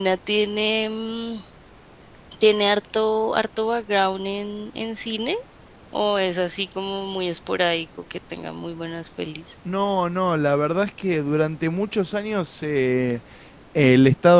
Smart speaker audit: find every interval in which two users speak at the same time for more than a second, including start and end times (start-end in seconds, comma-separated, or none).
none